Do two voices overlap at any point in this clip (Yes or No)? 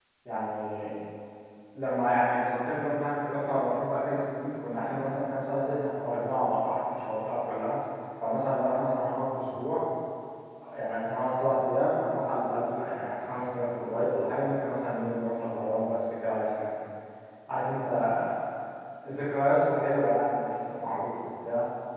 No